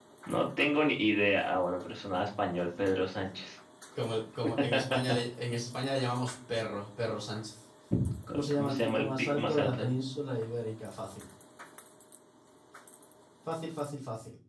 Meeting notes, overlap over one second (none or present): present